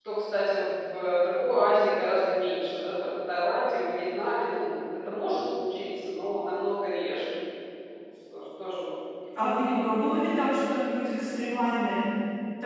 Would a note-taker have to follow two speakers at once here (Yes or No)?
No